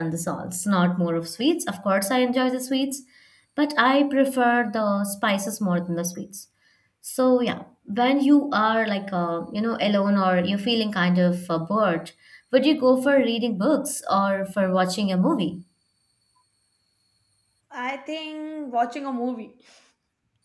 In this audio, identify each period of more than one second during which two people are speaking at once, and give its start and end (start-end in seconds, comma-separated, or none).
none